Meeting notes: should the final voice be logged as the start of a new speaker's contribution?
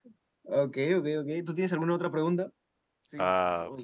Yes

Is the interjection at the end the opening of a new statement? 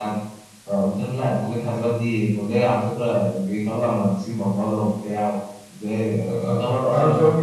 Yes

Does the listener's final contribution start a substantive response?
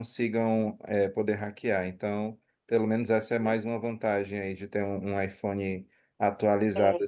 No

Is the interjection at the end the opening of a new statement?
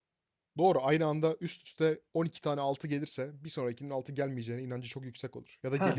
Yes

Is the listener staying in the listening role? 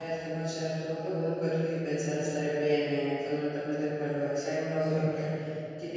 Yes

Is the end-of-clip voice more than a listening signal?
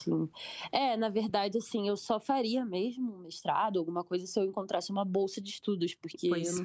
No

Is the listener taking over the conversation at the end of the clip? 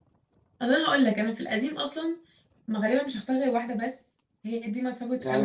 Yes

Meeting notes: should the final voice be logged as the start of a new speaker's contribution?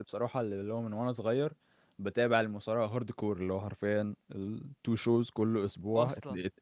No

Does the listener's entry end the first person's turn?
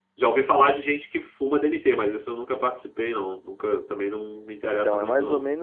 Yes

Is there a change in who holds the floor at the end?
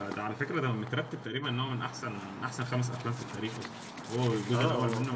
Yes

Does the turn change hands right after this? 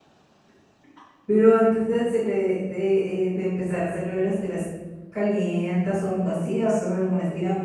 Yes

